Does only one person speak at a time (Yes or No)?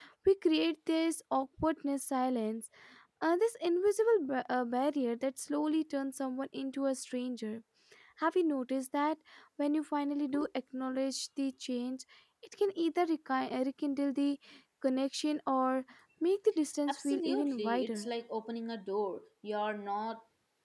No